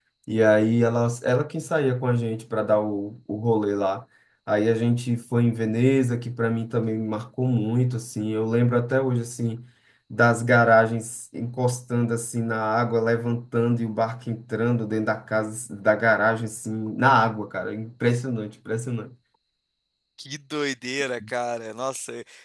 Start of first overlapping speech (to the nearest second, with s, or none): none